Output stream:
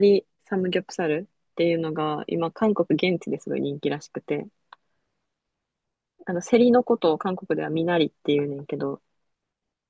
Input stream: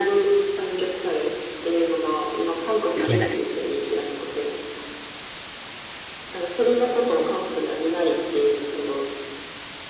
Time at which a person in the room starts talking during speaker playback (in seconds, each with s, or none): 3.0 s